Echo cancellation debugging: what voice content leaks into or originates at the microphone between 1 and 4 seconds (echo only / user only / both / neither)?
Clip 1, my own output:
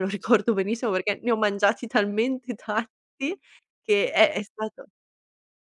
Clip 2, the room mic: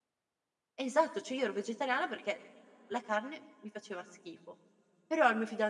user only